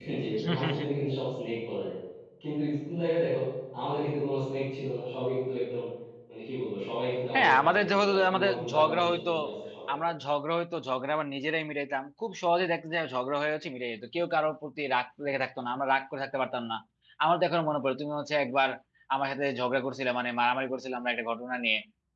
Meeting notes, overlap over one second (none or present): present